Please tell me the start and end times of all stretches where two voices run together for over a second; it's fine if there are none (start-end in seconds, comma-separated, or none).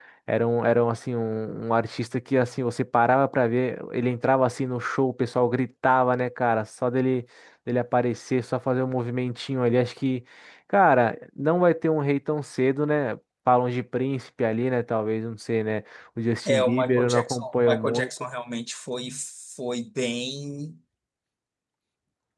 16.4-18.1